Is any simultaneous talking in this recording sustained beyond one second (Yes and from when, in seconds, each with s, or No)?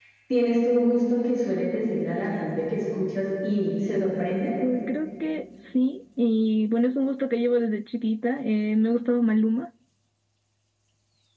No